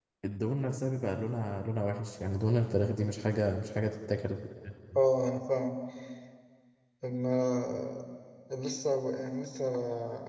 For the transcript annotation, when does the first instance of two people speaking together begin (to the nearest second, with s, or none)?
none